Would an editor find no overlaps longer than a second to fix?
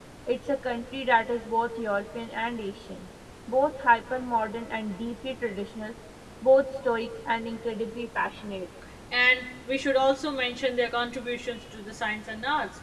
Yes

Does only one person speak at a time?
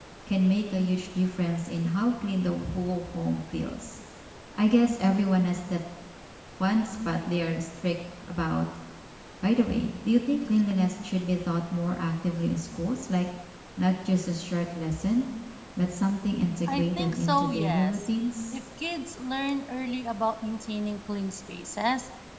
No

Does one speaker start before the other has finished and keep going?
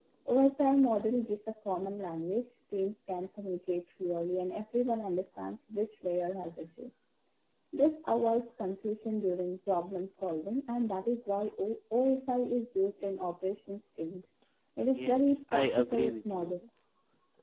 Yes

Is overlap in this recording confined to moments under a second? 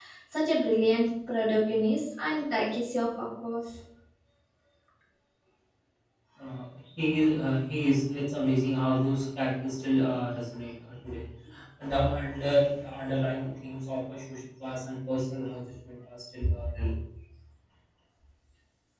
Yes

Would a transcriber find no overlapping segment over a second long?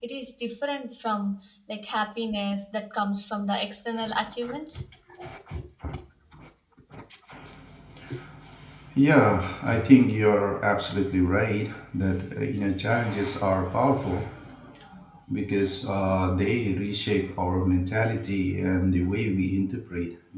Yes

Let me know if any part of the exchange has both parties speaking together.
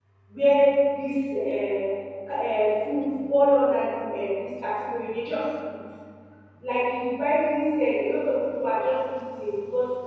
No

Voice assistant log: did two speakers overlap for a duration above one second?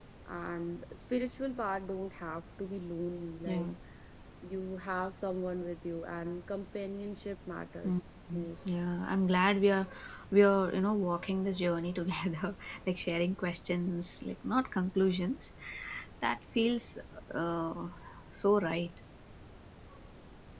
No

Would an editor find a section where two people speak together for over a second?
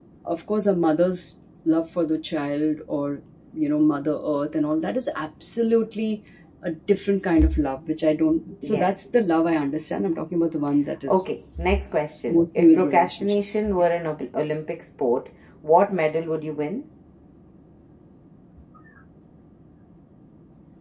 Yes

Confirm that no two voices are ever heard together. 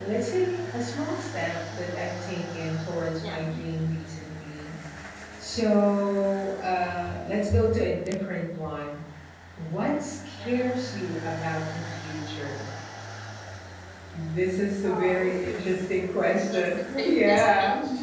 No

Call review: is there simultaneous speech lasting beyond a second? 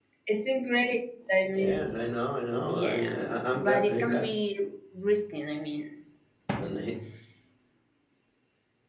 Yes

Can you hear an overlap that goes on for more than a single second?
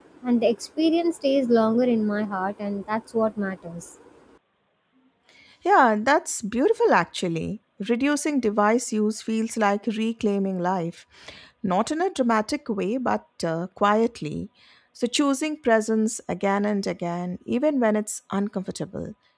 No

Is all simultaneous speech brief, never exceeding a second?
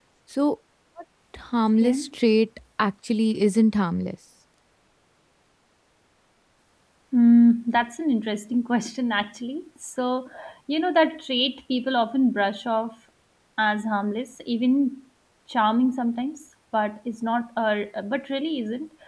Yes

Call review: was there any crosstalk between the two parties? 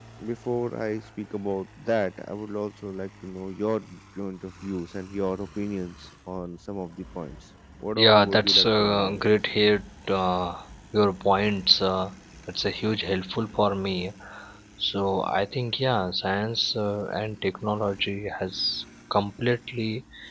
Yes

